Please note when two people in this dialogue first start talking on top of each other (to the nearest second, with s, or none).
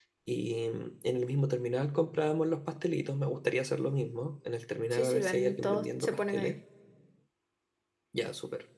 5 s